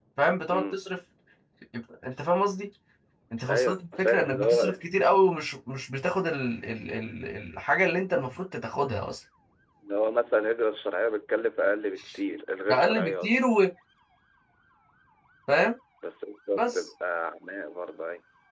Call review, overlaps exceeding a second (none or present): present